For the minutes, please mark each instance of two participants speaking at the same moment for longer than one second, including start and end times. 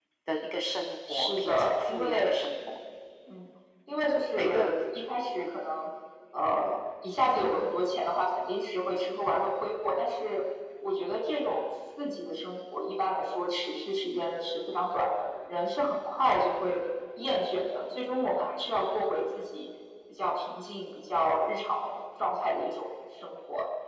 1.1-2.3

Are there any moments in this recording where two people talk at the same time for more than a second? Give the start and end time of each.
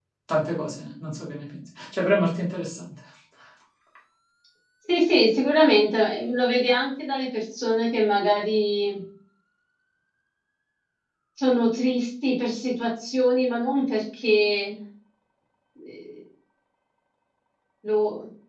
none

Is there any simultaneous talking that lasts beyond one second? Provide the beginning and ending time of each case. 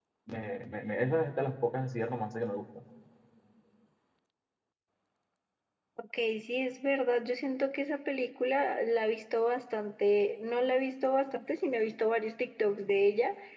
none

